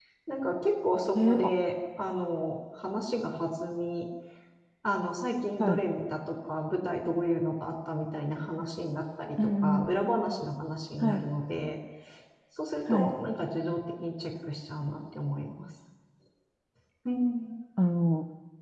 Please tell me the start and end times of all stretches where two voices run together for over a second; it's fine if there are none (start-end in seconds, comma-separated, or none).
none